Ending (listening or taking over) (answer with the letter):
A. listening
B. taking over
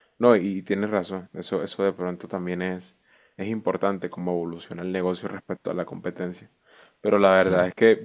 A